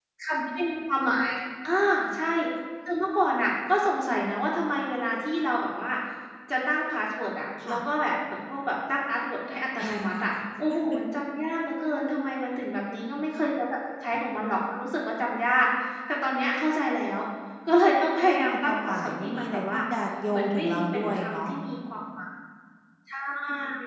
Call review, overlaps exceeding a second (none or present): present